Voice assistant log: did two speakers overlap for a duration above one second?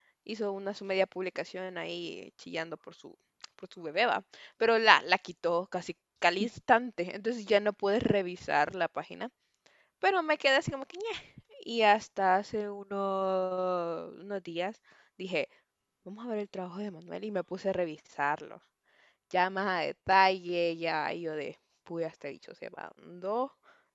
No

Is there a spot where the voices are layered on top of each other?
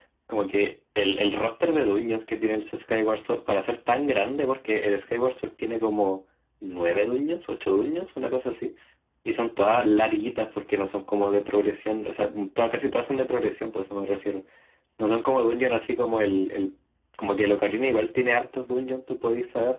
No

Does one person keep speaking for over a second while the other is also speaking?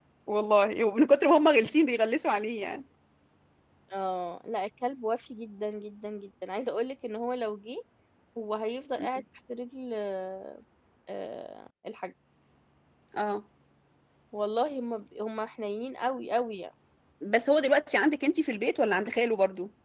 No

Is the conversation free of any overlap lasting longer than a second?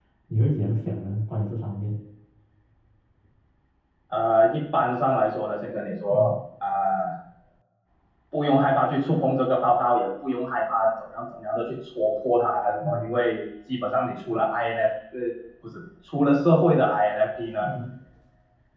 Yes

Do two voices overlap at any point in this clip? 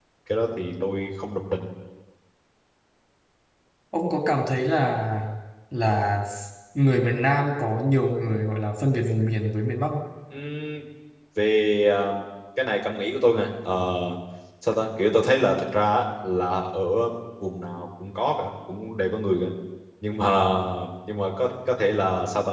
No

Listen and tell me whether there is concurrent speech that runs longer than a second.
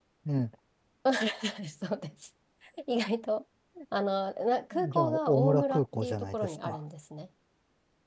Yes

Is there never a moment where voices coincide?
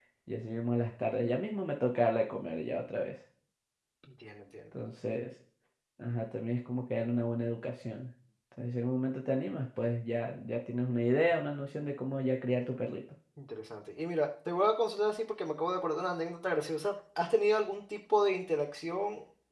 Yes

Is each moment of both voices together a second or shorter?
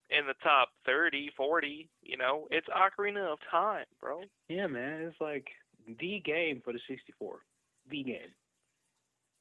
Yes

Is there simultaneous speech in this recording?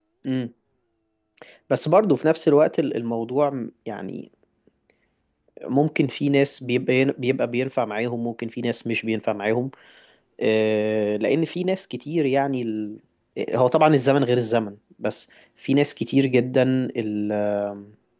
No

